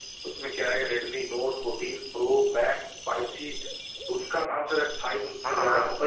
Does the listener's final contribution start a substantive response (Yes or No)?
No